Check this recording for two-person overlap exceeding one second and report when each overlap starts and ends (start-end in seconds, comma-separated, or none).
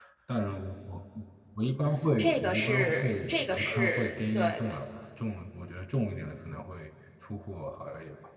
2.2-4.8